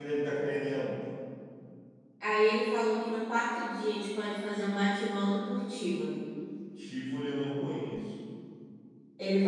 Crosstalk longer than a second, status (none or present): none